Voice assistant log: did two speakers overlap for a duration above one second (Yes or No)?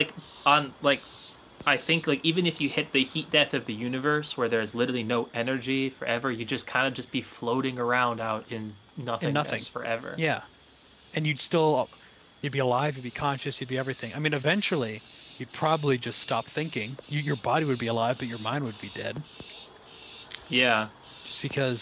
No